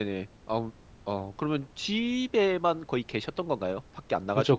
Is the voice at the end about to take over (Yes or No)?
Yes